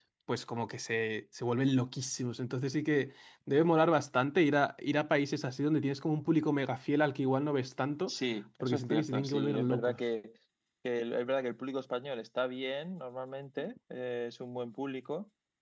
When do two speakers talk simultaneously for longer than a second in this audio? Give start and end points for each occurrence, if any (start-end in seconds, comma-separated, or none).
8.6-10.0